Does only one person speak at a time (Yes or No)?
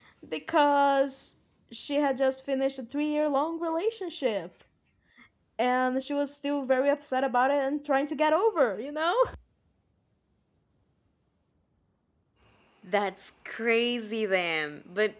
Yes